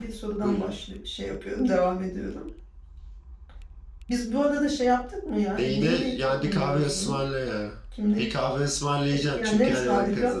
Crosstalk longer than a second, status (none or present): present